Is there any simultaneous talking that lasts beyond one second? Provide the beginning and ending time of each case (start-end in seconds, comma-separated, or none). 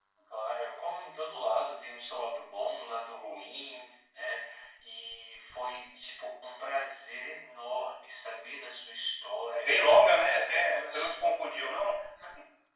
9.5-11.1